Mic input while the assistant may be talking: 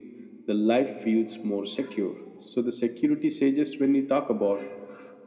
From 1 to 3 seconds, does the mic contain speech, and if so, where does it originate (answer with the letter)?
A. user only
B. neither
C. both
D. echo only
D